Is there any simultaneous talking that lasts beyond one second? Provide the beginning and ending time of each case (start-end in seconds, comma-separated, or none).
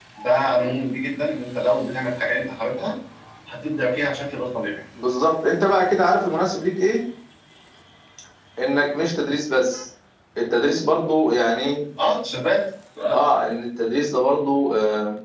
none